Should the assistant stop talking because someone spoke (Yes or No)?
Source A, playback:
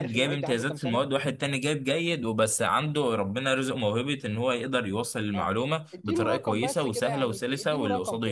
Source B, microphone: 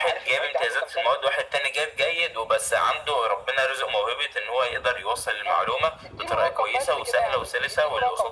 No